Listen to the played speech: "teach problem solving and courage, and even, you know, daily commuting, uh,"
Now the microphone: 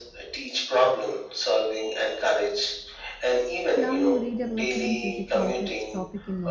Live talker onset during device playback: 4 s

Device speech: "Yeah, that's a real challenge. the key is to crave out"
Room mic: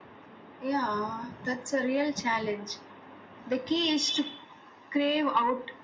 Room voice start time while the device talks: none

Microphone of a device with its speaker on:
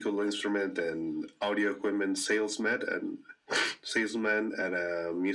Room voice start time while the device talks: none

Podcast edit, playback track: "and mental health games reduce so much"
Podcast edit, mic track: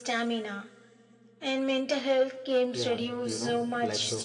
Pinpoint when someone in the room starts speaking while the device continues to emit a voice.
3 s

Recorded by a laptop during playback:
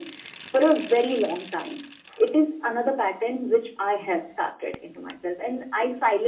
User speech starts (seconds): none

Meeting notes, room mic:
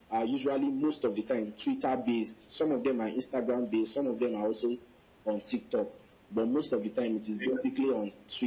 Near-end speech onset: none

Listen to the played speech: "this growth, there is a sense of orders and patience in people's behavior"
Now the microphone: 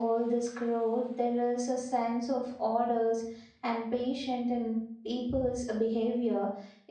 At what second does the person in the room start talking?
none

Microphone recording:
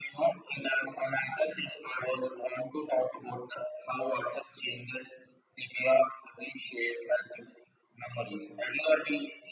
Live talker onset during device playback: none

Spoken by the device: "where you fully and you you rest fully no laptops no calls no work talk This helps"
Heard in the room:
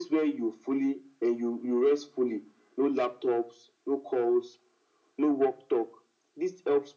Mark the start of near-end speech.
none

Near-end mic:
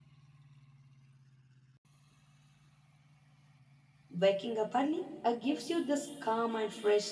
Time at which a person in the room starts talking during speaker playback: 4 s

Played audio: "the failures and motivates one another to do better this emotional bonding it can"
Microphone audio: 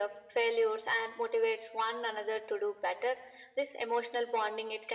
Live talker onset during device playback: none

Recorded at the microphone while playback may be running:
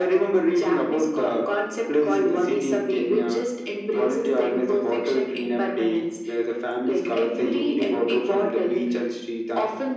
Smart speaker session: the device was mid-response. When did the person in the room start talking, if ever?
none

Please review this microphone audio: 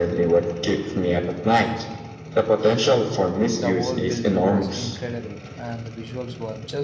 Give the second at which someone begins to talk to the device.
4 s

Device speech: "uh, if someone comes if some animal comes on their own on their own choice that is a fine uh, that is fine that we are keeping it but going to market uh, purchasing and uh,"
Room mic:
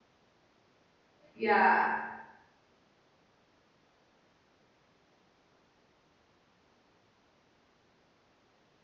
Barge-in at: 1 s

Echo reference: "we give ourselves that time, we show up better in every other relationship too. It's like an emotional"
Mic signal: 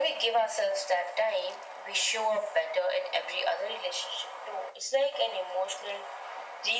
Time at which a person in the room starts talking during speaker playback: none

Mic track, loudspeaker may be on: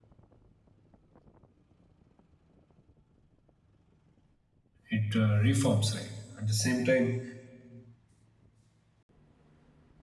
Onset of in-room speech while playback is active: 5 s

